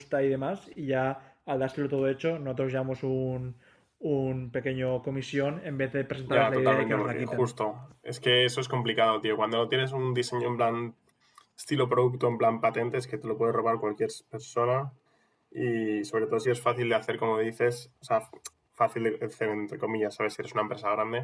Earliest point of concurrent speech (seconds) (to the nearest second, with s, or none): 6 s